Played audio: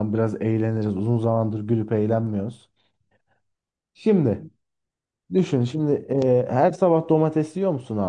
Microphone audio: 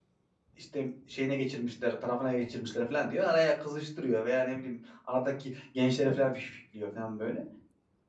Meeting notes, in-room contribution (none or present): present